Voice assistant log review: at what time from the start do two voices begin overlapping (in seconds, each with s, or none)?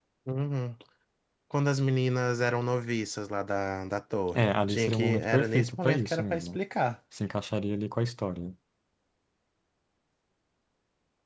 4.3 s